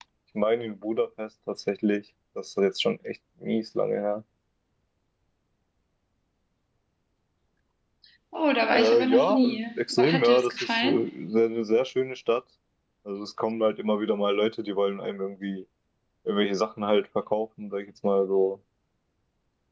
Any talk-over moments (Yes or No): Yes